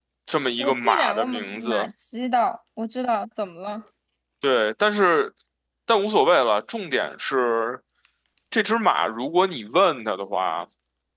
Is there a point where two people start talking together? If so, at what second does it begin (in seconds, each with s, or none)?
0.6 s